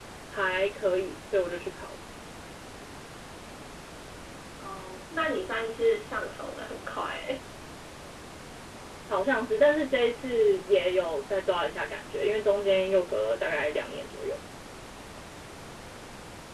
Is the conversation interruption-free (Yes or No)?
Yes